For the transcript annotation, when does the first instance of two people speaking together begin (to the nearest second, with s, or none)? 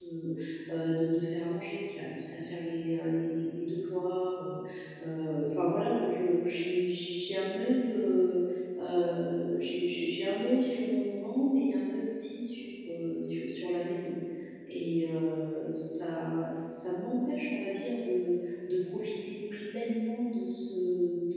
none